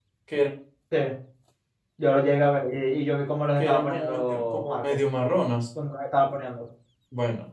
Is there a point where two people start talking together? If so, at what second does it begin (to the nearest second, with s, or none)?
4 s